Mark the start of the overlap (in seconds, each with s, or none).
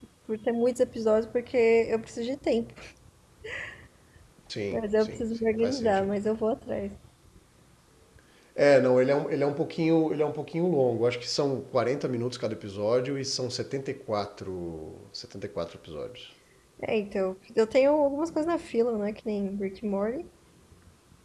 4.7 s